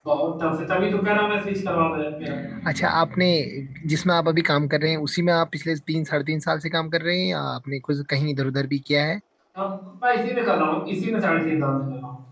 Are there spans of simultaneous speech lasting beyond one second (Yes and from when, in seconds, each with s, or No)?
No